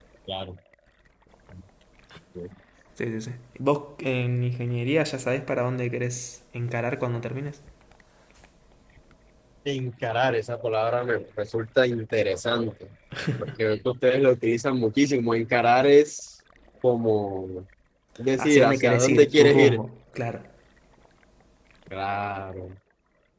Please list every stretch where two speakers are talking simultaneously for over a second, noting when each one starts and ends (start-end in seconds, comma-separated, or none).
18.4-19.8